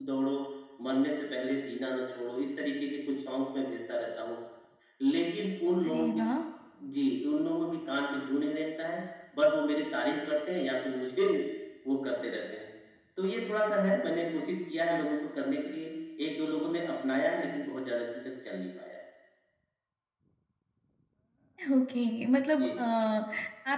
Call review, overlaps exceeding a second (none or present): none